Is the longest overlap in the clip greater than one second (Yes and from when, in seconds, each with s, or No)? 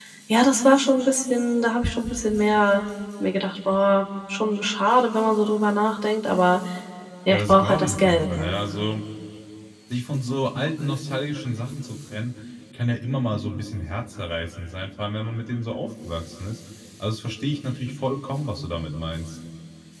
Yes, from 7.3 s